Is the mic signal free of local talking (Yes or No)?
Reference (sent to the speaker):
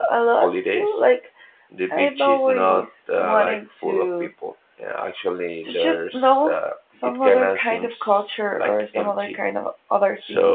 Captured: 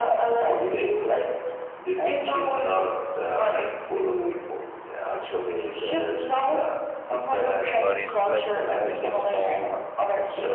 No